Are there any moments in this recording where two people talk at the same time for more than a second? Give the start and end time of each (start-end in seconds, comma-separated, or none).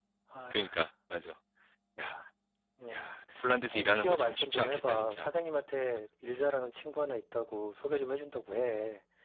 3.7-5.3